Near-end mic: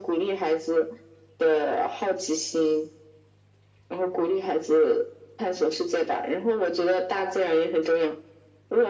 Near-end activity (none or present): none